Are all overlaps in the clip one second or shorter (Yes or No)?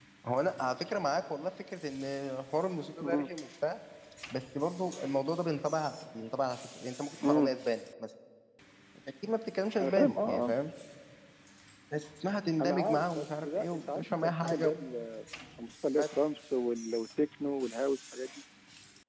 No